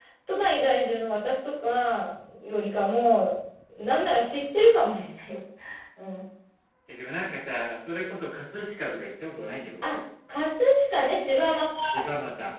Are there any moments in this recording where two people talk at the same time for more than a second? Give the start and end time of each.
none

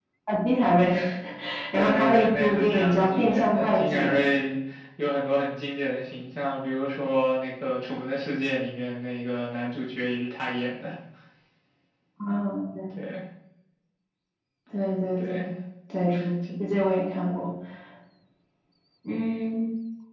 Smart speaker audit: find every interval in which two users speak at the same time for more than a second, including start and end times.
1.7-4.1

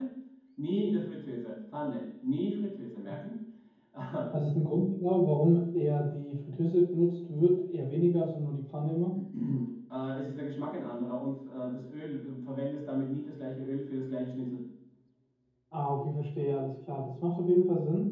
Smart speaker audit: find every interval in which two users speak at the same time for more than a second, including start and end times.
none

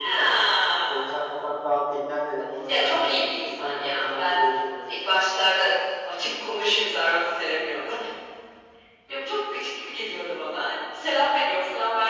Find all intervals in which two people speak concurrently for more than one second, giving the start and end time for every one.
2.8-4.4

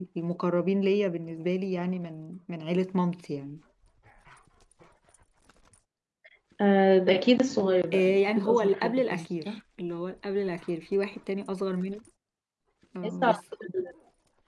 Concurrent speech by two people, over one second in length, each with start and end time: 7.9-9.5

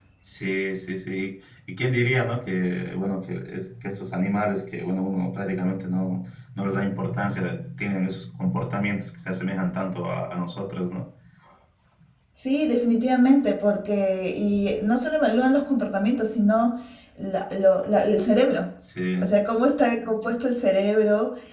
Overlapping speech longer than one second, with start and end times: none

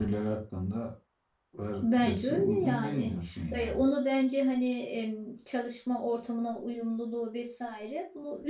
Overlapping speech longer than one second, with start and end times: 1.8-3.1

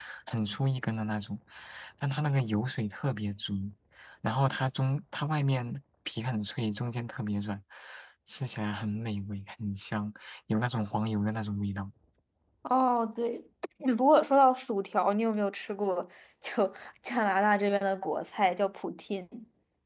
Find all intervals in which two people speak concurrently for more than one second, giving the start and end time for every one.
none

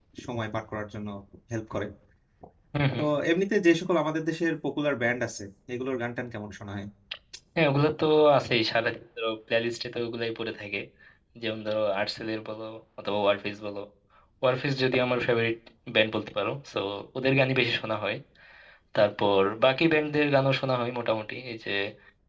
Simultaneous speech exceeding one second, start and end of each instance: none

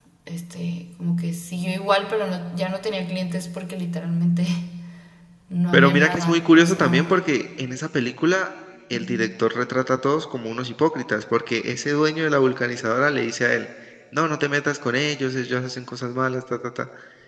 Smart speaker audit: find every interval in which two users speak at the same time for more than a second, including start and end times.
5.7-7.2

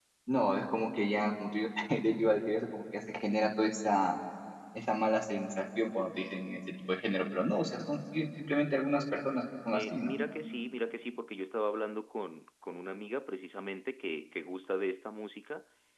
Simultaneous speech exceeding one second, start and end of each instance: none

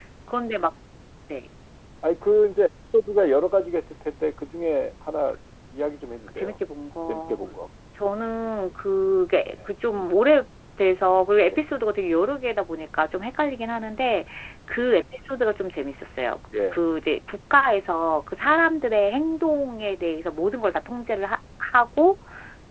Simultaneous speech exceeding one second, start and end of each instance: none

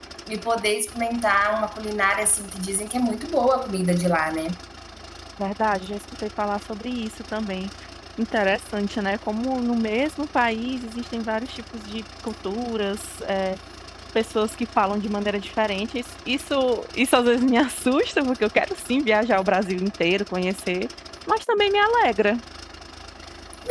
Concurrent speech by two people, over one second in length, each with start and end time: none

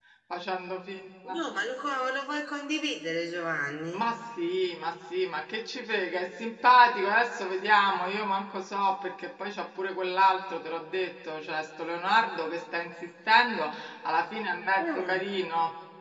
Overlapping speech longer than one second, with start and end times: none

